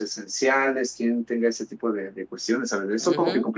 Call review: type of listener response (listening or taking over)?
taking over